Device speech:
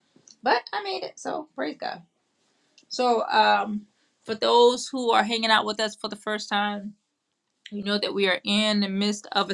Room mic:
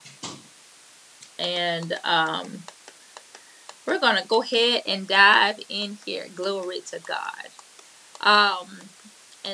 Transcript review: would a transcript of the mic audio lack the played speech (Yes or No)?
Yes